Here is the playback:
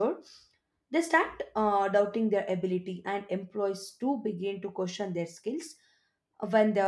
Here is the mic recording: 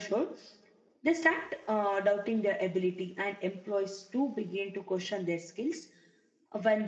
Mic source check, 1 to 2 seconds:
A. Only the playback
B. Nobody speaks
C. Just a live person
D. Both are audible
A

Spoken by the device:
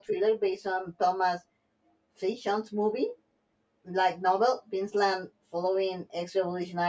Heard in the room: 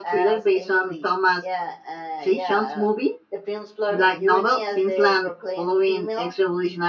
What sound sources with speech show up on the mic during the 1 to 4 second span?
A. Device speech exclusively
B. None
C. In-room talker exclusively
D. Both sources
D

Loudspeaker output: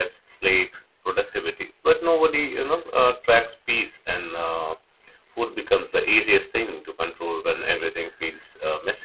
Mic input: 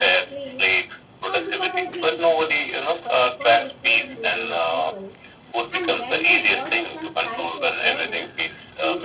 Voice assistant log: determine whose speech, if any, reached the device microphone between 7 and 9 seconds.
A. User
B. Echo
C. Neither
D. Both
D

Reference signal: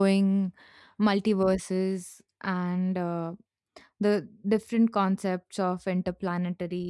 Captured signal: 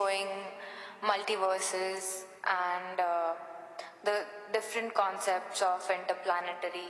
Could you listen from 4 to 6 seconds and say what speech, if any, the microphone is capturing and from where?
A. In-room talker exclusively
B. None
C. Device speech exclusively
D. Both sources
C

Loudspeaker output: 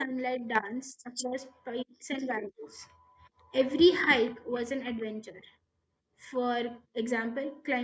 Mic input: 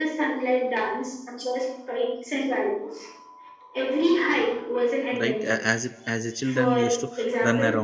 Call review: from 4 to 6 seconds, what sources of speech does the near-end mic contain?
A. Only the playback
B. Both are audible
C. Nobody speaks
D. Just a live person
B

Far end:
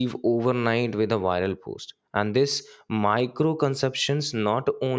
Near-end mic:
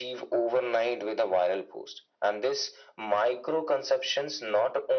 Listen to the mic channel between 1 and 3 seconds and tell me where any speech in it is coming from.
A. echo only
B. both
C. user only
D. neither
A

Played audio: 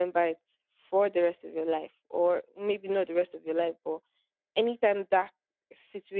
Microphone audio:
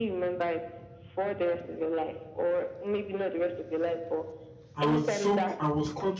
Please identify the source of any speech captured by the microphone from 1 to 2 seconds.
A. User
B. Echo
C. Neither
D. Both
B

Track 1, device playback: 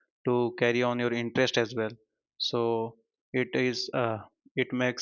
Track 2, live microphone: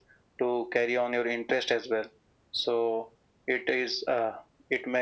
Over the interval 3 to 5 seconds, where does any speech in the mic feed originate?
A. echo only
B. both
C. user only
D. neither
A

